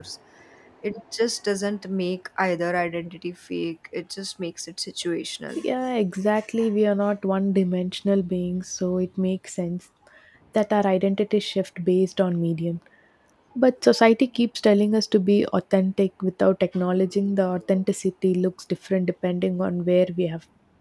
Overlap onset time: none

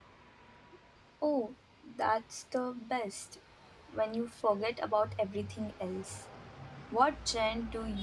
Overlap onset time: none

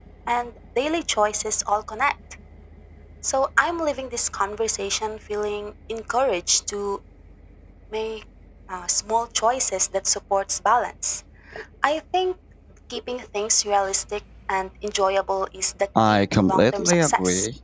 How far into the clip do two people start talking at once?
15.9 s

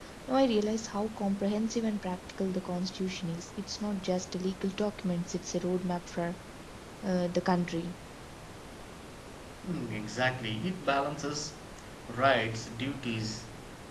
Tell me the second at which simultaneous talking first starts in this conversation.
none

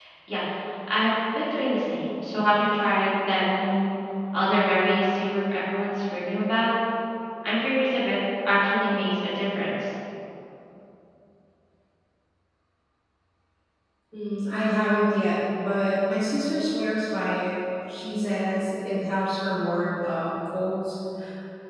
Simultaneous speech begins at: none

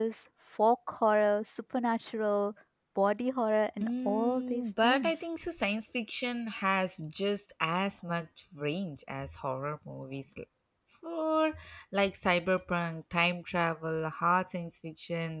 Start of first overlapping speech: 3.8 s

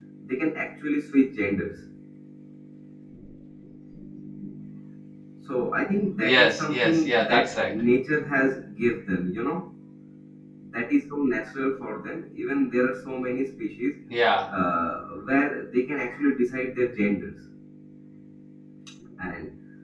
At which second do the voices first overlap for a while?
6.2 s

